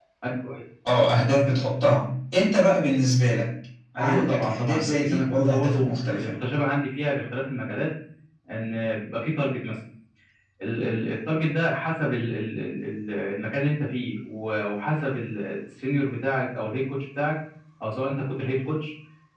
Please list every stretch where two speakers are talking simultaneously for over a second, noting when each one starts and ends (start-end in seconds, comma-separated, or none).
4.0-6.3